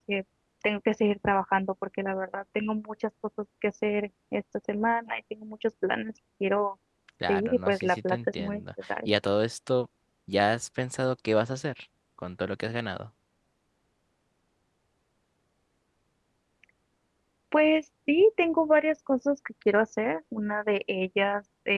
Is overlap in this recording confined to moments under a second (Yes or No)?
No